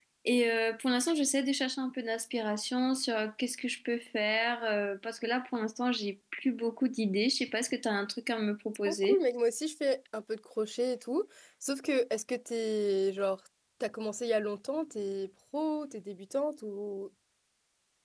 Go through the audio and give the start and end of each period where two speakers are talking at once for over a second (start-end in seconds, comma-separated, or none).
none